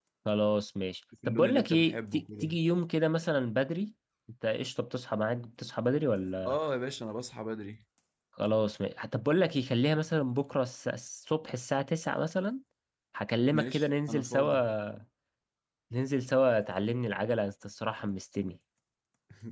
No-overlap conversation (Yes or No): No